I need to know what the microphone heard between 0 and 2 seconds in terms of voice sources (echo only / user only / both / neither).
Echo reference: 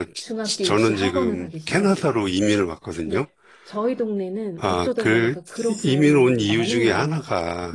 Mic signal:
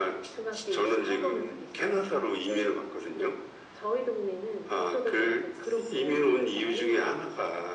echo only